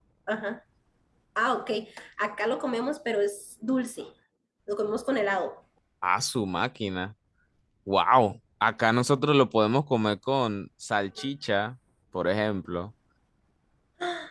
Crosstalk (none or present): none